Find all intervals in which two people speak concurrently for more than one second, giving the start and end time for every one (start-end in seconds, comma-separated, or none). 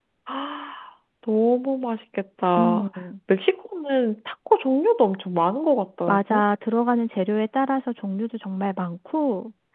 none